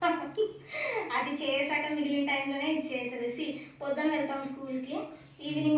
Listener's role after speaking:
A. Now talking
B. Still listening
B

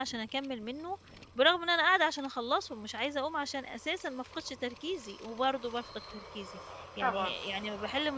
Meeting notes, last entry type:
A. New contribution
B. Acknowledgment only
B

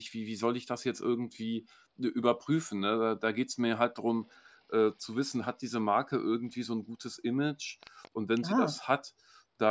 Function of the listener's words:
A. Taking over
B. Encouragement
B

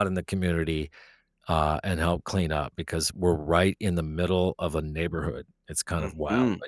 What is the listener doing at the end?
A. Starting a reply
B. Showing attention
A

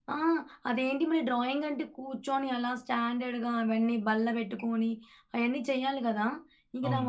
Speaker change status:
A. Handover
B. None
B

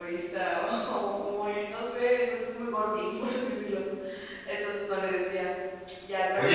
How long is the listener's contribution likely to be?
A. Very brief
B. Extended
B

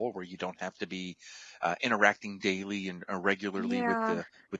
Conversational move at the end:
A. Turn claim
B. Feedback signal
B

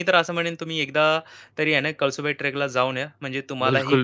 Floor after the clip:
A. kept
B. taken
B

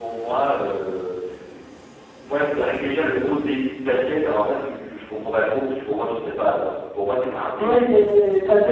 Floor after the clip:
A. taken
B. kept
A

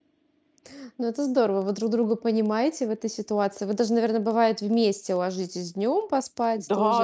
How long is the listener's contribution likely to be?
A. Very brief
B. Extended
B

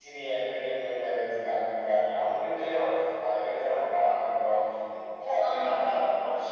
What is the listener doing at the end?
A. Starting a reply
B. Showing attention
B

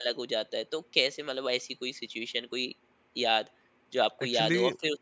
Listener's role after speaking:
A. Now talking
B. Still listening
B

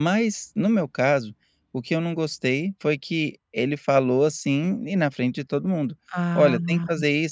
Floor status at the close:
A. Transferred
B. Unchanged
B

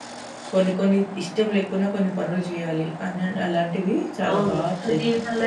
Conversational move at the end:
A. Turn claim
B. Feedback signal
A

